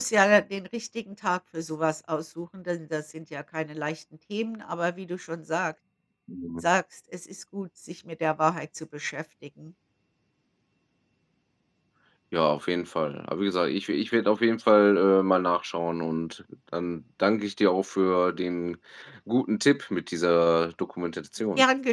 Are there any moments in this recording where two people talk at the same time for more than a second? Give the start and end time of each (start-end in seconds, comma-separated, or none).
none